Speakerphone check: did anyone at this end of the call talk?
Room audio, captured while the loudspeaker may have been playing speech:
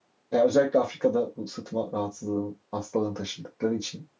Yes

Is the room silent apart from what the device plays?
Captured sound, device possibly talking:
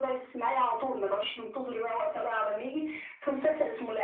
Yes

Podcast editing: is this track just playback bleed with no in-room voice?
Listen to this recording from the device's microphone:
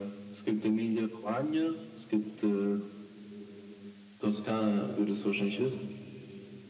Yes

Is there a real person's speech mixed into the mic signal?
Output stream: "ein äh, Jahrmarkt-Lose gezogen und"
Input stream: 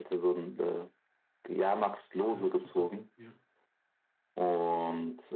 Yes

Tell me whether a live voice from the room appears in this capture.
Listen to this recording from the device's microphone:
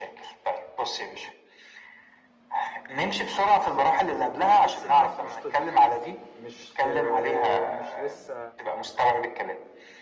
Yes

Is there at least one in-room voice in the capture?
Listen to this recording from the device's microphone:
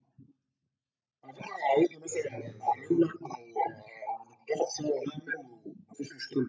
Yes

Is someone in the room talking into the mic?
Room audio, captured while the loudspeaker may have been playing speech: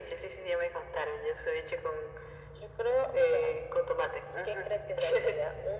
No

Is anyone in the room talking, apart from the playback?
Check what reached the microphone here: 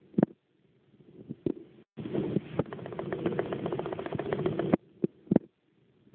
No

